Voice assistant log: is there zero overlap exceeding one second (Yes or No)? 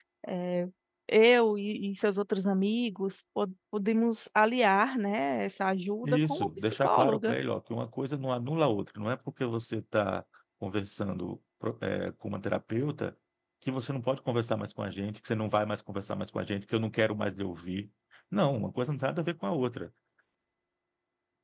No